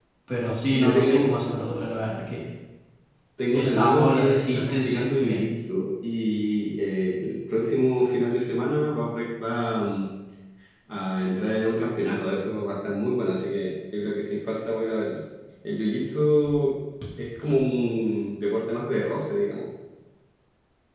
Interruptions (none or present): present